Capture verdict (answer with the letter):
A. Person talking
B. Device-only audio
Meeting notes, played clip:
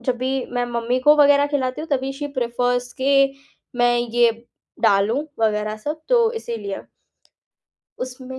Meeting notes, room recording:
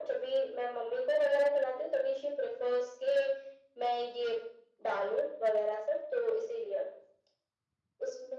B